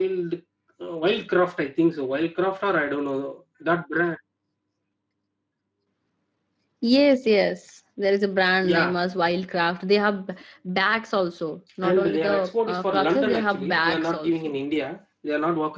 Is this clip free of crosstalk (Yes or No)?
No